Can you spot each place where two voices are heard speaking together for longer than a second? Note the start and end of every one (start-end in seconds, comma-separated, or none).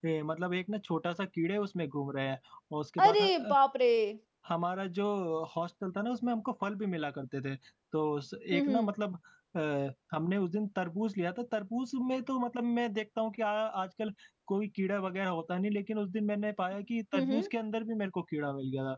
none